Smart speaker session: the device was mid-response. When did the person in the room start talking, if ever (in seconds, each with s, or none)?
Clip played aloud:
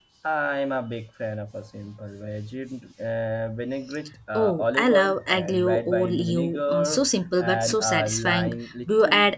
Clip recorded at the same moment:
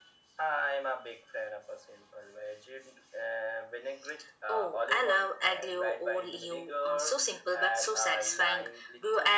none